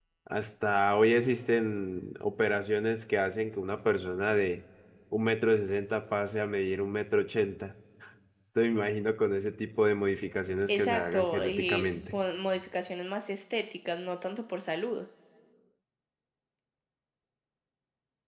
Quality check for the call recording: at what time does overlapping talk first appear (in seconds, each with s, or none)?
10.7 s